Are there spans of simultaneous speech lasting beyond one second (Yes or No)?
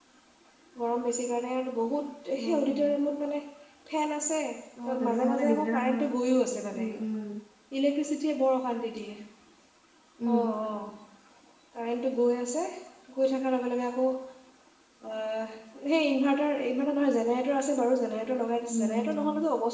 Yes